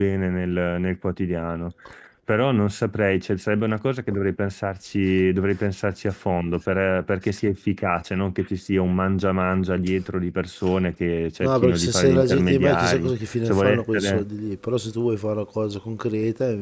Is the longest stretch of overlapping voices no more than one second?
No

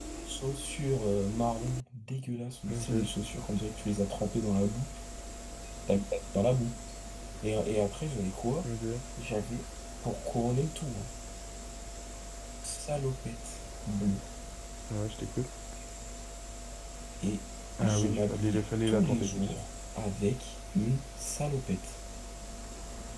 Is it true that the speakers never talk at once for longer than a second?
No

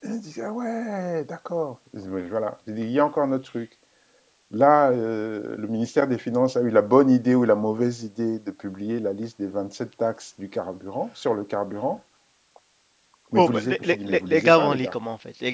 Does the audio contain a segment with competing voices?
Yes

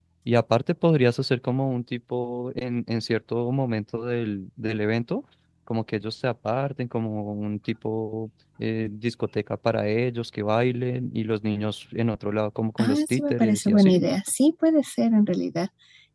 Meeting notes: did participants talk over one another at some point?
Yes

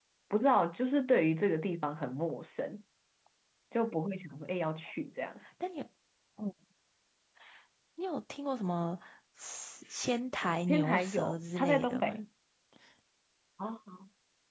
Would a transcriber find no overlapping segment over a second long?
No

